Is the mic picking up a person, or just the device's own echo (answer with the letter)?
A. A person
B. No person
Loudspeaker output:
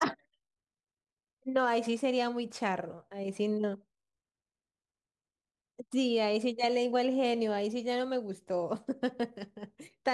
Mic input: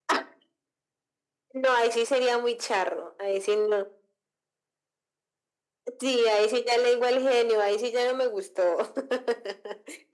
B